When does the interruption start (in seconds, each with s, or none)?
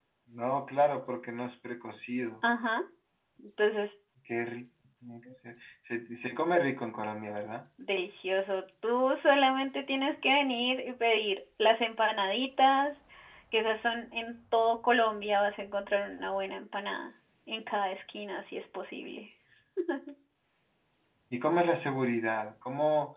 none